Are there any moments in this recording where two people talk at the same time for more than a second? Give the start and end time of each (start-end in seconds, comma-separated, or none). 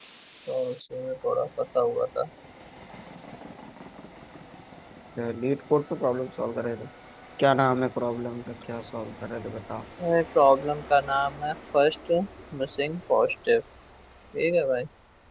none